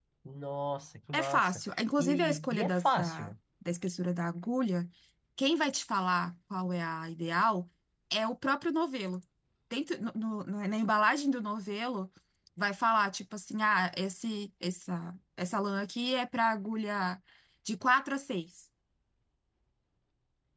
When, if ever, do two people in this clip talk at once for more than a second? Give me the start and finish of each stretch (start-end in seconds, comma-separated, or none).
2.0-3.3